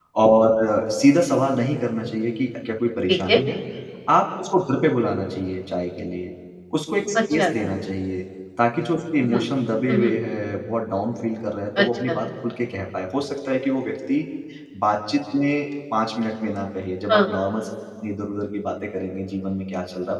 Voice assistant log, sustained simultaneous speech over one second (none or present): none